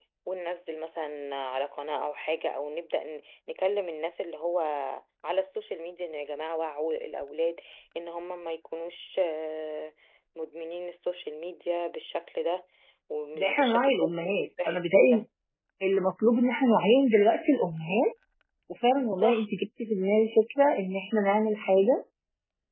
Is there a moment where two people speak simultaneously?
Yes, from 13.4 s

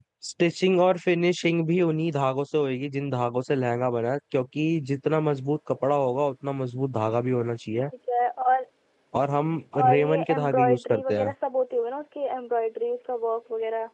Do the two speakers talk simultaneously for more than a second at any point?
Yes, from 9.8 s

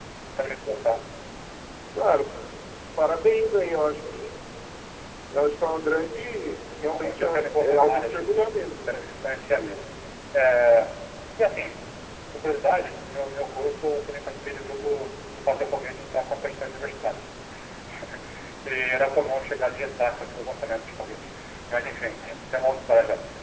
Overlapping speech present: Yes, from 6.9 s

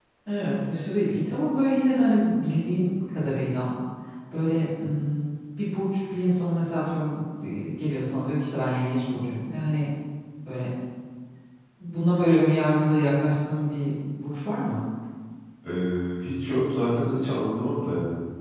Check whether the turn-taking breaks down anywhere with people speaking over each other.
No

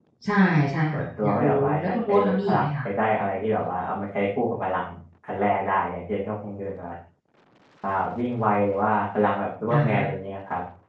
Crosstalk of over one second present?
Yes, from 0.9 s

